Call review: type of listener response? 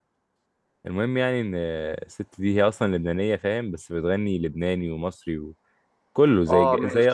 listening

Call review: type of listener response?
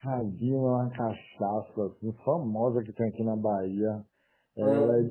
listening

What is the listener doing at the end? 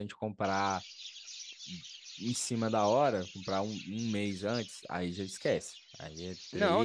taking over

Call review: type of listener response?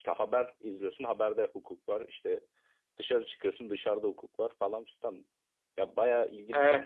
taking over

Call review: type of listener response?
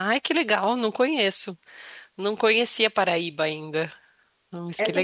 taking over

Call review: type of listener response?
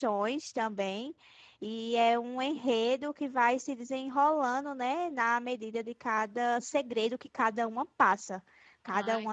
listening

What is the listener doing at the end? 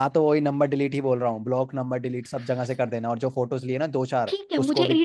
taking over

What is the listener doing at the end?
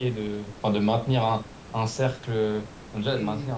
listening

